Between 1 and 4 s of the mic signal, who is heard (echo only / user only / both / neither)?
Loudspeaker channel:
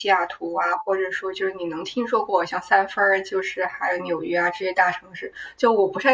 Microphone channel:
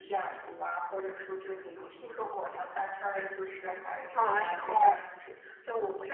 echo only